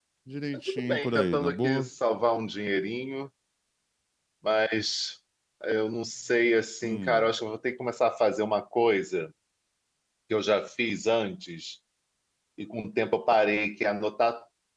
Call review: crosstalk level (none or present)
present